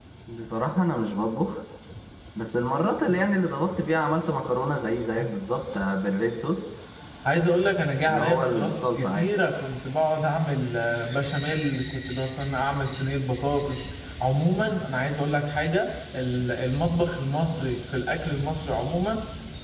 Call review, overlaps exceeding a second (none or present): present